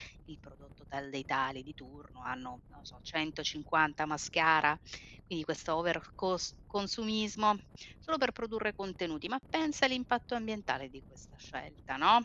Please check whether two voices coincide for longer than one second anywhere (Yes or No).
No